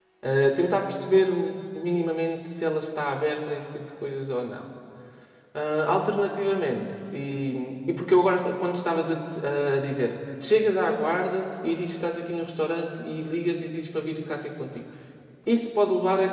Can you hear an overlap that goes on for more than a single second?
No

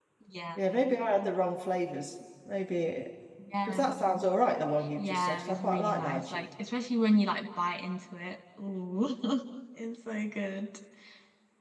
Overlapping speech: Yes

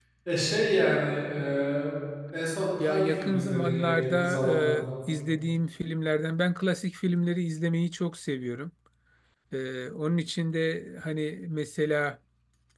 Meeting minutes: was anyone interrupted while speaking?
Yes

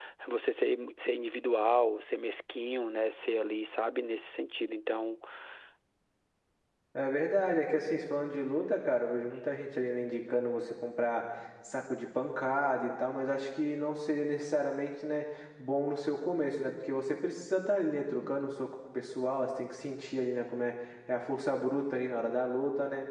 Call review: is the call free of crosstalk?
Yes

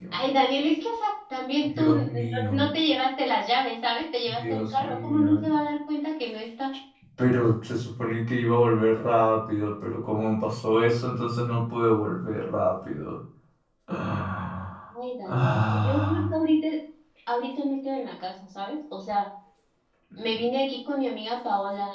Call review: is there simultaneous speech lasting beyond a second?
Yes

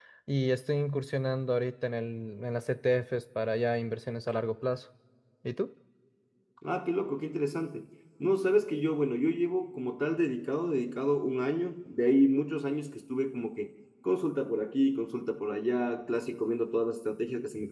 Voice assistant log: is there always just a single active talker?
Yes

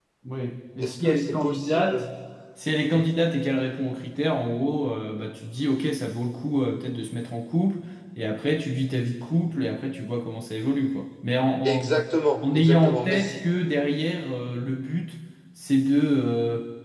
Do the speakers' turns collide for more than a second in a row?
Yes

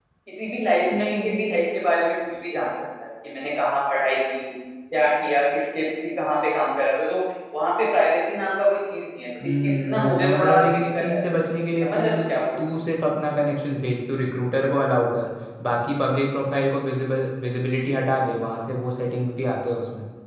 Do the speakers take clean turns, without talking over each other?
No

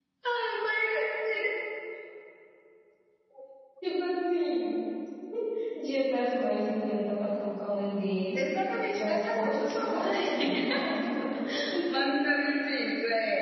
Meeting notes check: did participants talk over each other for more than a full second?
Yes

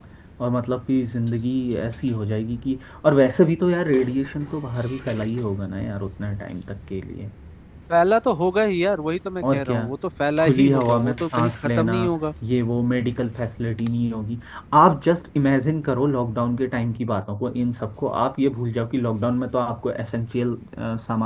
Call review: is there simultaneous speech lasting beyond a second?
Yes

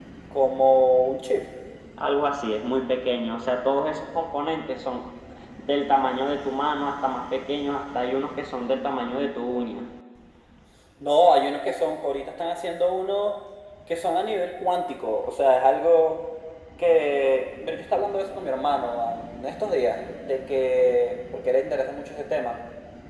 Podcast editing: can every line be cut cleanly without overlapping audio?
Yes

